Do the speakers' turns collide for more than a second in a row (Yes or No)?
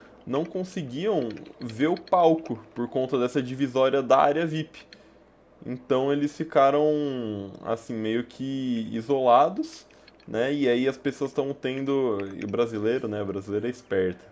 No